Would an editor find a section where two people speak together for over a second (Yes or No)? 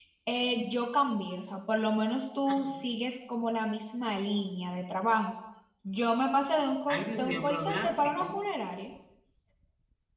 Yes